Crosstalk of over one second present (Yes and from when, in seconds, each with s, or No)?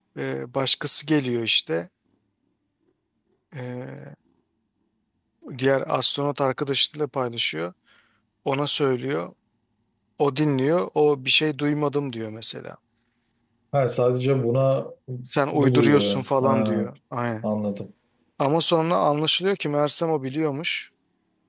Yes, from 15.5 s